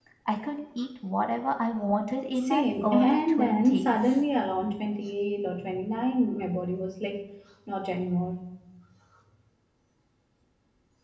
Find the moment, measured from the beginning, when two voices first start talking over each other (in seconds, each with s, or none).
2.5 s